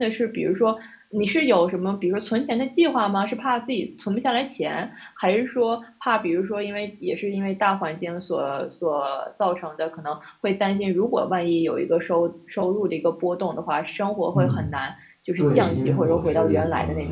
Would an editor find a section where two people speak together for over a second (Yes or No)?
Yes